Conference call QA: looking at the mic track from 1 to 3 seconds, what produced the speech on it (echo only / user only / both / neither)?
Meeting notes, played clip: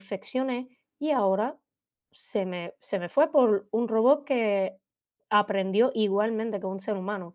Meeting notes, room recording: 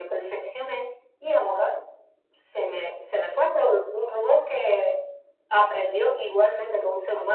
echo only